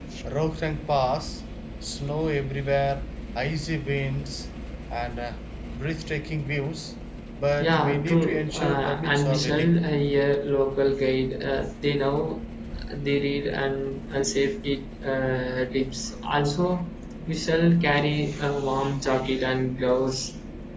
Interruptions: present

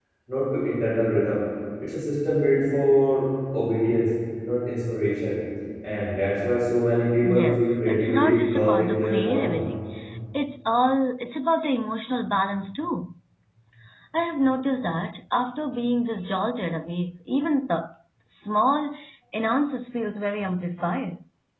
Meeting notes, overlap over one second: present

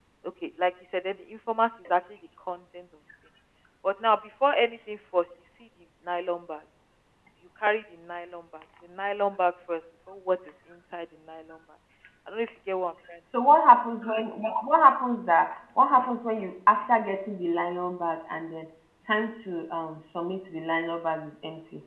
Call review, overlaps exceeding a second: none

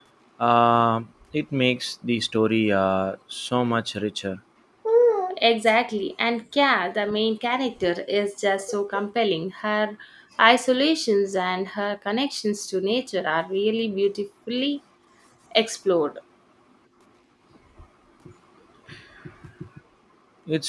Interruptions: none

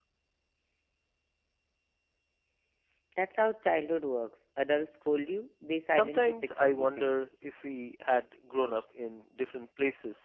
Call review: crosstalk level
present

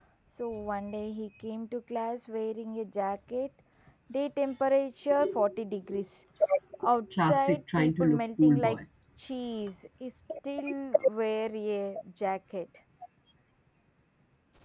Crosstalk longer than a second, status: present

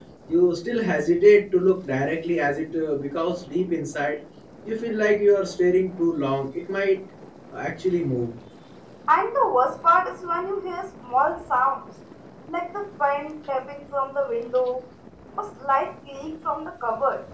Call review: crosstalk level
none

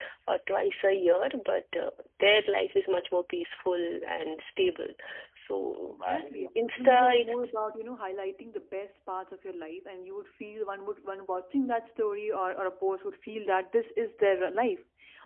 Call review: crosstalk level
present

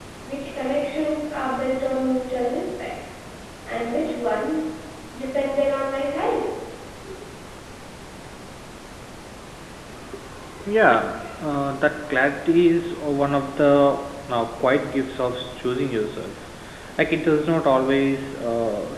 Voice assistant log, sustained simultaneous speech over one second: none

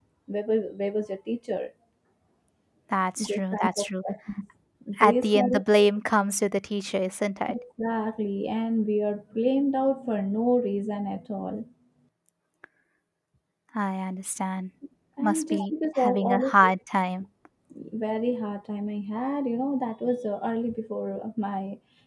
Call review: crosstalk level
present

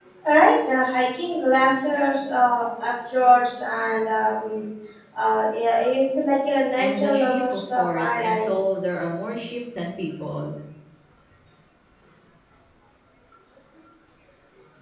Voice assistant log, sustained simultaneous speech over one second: present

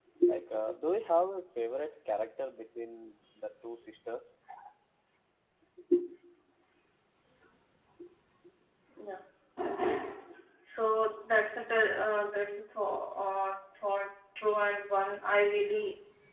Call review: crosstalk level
none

